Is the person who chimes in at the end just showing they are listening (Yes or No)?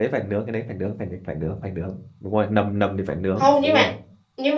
No